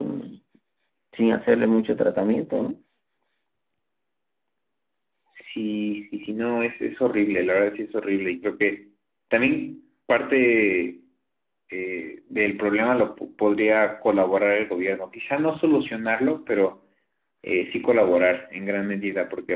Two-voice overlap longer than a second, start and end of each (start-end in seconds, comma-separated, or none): none